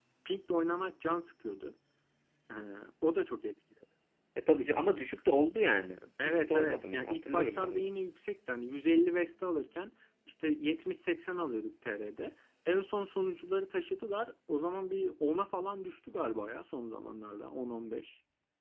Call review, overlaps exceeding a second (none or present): present